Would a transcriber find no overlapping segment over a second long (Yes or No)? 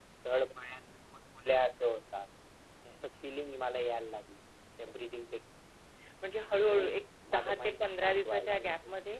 No